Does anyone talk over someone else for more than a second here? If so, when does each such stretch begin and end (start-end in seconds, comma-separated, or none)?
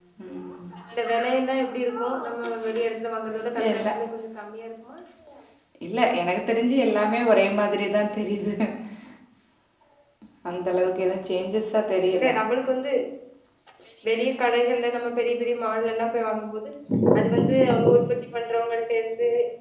none